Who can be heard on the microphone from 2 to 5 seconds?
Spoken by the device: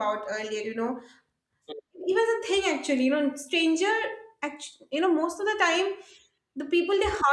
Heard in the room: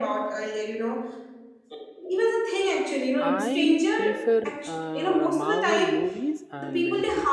both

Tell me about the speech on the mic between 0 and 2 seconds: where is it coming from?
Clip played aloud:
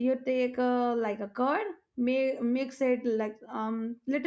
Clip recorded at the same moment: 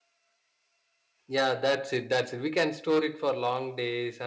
user only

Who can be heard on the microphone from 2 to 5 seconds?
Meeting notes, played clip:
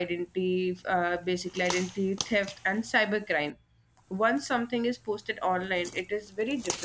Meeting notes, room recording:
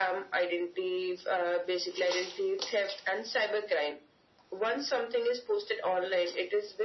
echo only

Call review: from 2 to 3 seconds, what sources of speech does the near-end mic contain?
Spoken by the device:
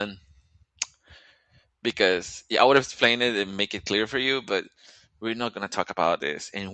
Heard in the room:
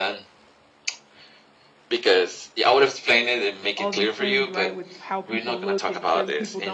echo only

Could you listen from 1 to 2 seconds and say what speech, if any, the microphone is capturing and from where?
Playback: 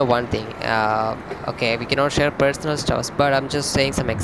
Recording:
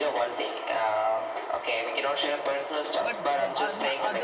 echo only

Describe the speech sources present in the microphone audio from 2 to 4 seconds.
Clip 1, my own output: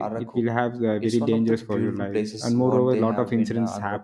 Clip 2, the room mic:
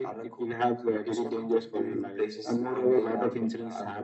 echo only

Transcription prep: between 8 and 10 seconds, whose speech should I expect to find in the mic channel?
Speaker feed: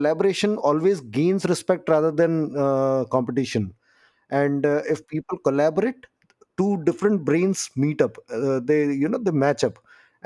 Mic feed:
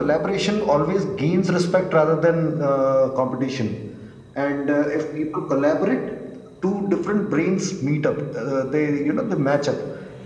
echo only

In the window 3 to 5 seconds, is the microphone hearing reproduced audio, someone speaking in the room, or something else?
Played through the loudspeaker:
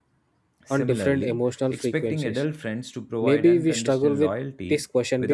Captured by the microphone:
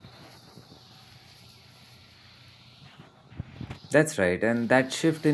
user only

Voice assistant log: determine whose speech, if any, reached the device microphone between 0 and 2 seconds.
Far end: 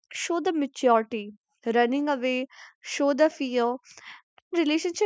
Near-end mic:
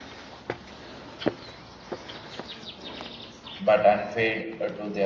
neither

